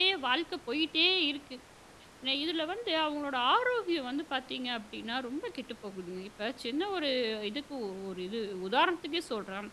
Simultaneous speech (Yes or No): No